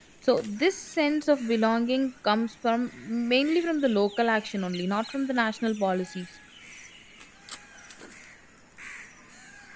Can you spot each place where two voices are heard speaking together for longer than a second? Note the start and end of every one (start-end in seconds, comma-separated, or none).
none